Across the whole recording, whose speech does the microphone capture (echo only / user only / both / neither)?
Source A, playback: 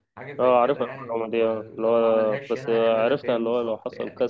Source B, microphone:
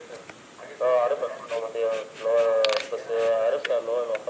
echo only